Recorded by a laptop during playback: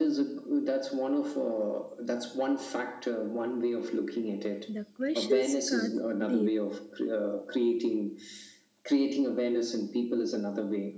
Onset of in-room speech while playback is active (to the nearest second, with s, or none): 5 s